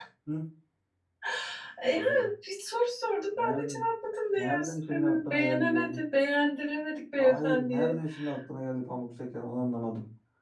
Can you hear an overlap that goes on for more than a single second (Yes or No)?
Yes